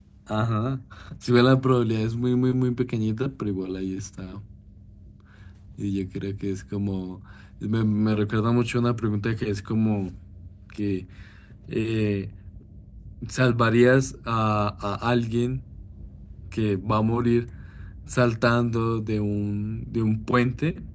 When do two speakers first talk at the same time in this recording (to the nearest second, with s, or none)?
none